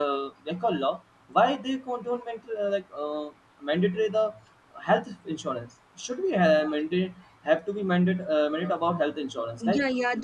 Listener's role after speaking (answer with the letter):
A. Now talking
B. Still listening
A